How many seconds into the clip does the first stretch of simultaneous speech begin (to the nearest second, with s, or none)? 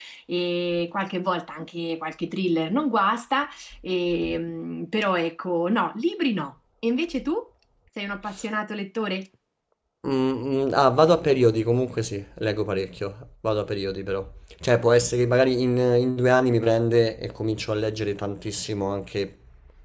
none